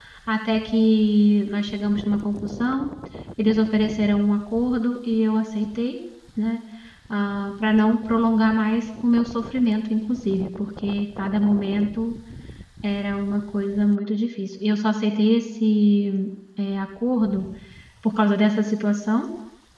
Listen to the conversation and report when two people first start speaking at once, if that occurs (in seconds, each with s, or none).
none